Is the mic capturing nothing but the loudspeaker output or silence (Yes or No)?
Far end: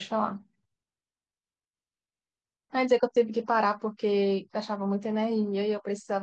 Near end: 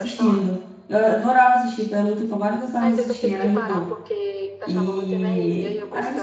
No